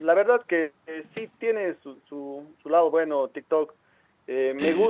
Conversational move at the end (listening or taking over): listening